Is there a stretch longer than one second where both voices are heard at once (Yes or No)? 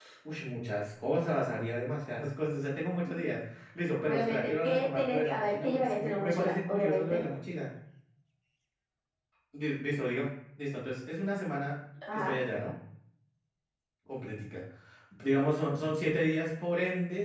Yes